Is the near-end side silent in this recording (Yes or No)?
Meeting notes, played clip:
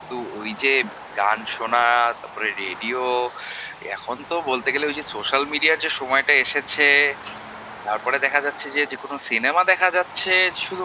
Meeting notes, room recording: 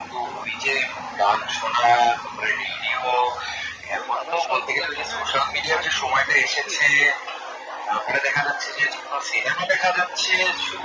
No